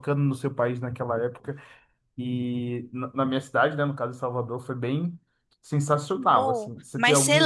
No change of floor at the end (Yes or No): No